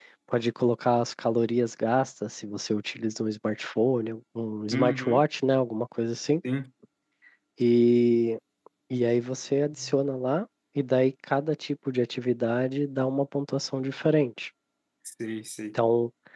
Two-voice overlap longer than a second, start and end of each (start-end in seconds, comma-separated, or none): none